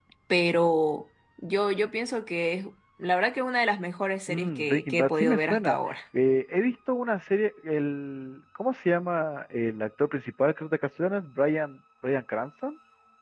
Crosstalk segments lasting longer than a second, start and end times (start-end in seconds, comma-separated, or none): 4.3-6.0